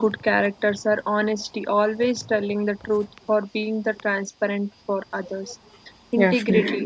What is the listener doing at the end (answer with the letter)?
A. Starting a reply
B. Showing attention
B